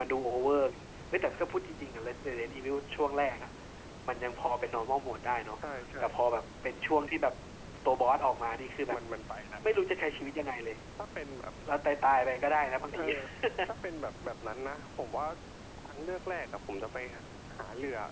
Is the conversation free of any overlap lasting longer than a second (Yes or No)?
Yes